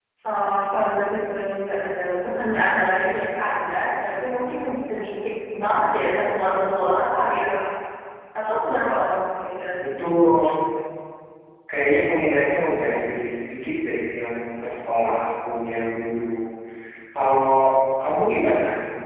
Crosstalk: none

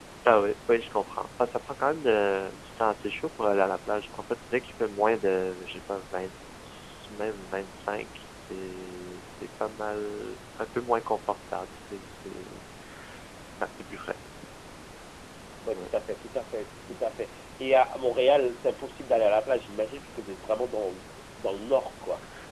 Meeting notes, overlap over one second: none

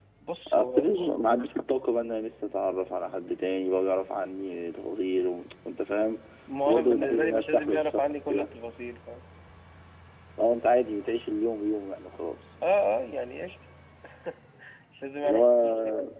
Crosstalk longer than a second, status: present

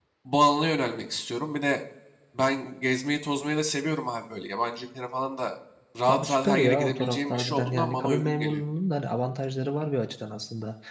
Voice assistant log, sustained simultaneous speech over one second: present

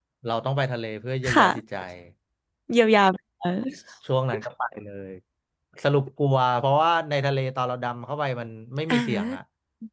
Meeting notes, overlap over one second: none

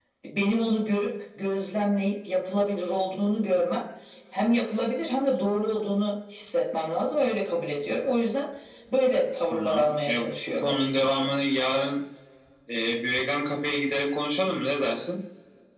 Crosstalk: present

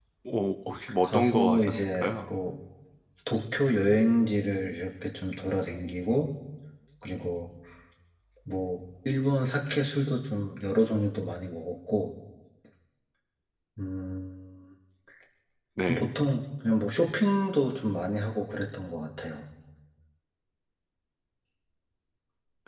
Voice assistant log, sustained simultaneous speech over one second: present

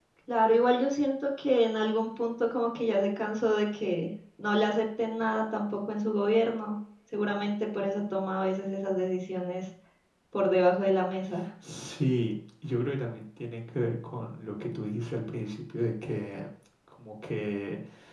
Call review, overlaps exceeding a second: none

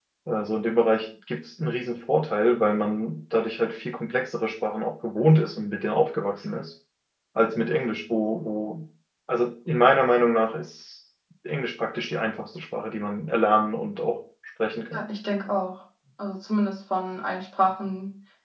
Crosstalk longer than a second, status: none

